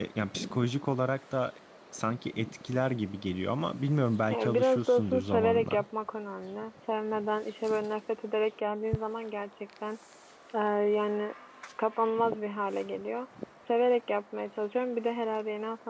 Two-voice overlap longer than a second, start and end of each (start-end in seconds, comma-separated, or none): 4.3-5.8